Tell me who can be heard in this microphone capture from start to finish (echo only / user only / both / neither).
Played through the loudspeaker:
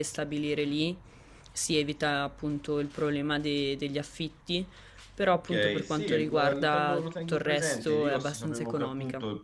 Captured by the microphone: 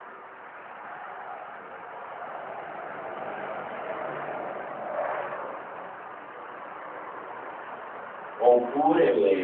user only